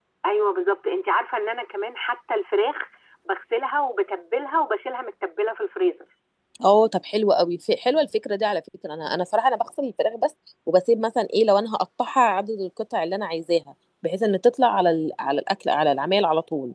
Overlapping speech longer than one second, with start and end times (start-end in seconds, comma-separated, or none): none